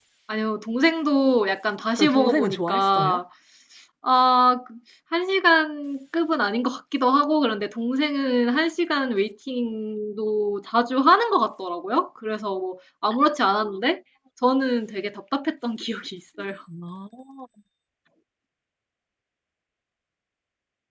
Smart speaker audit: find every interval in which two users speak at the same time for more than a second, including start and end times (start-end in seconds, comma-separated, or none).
2.0-3.2